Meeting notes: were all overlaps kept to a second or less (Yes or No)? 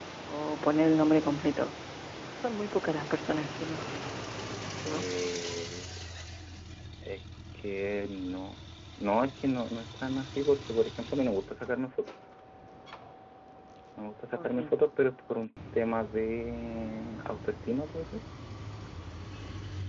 Yes